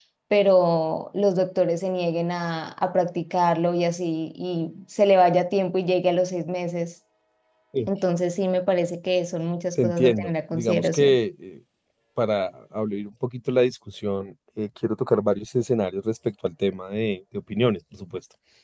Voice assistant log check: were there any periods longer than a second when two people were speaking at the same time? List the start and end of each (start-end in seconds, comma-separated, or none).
9.8-11.2